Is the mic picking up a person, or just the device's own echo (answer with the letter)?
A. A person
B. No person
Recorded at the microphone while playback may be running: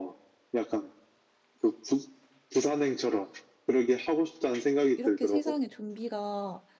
A